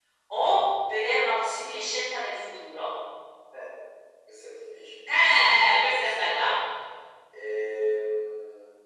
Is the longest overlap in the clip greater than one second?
Yes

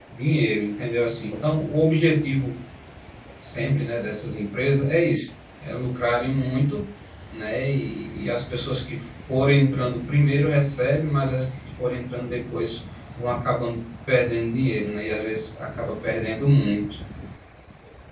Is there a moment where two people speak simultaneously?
No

